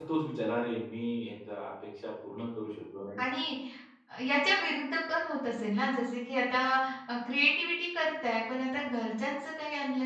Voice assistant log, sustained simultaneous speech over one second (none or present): none